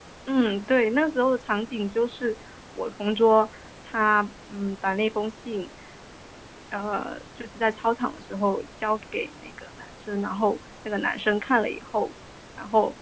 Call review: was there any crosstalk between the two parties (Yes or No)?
No